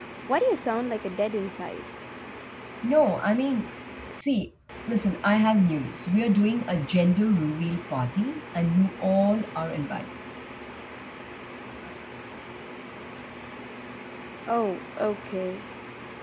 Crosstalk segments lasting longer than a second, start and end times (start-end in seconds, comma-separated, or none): none